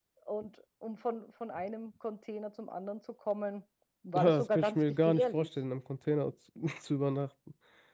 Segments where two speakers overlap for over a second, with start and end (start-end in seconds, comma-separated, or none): 4.2-5.5